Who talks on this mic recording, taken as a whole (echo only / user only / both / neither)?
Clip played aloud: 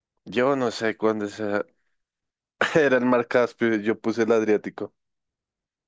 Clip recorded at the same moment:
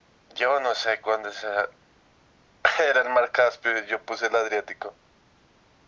echo only